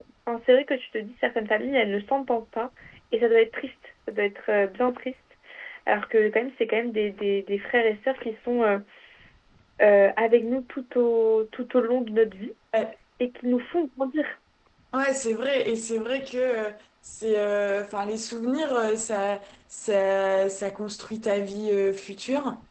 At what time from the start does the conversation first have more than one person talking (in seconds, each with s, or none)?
none